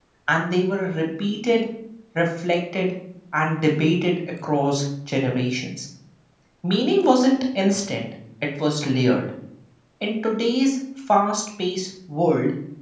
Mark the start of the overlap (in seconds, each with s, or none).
none